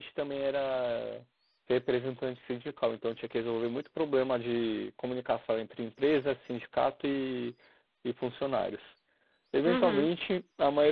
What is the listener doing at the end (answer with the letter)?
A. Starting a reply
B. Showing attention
B